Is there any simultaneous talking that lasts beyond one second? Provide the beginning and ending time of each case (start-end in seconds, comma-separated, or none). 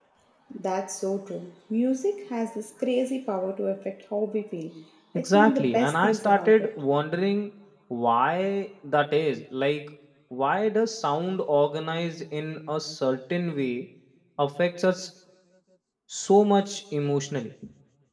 5.2-6.7